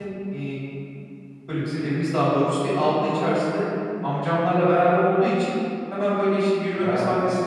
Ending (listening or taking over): listening